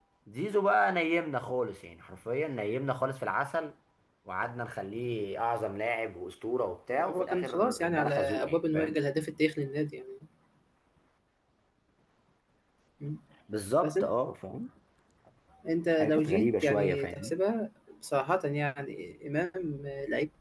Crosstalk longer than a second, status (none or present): present